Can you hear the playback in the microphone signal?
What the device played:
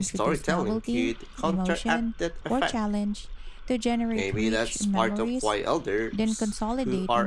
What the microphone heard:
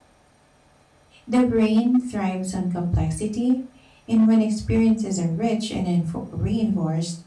No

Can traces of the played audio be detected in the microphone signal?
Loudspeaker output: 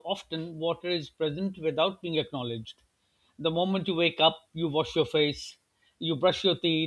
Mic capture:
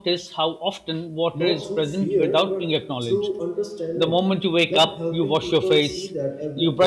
Yes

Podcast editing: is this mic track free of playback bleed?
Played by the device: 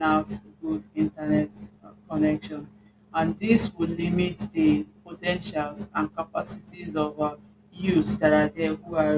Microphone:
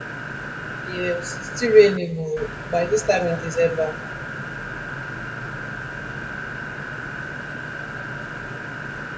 Yes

